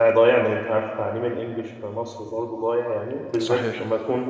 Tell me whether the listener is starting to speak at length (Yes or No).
No